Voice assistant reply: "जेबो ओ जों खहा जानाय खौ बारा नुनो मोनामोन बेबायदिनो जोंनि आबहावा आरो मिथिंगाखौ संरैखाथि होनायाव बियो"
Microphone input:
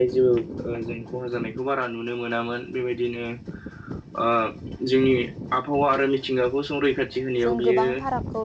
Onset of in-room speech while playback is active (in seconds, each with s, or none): 7.5 s